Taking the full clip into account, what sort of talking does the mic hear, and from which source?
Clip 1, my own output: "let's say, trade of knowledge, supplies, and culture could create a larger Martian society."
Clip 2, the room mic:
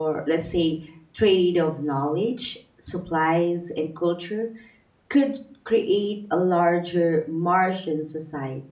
echo only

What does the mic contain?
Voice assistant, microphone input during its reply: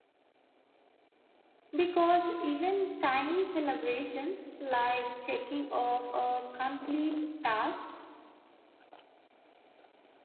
user only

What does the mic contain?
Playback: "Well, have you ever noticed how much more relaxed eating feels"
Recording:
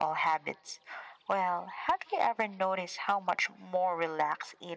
echo only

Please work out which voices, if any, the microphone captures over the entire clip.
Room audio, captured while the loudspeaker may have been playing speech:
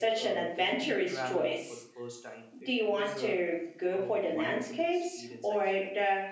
both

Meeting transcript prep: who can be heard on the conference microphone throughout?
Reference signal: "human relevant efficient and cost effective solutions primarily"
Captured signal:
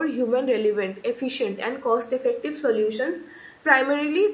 echo only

